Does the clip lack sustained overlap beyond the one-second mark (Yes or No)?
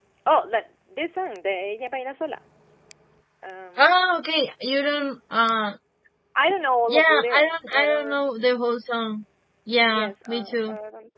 No